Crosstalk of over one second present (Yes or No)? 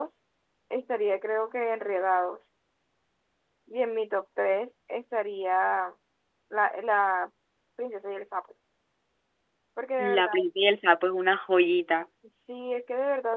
No